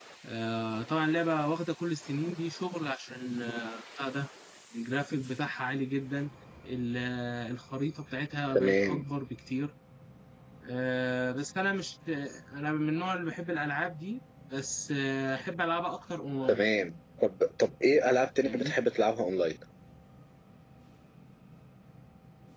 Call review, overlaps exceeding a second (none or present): none